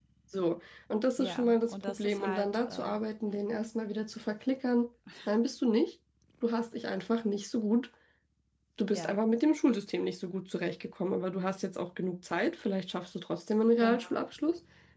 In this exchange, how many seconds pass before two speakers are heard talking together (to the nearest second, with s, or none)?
1 s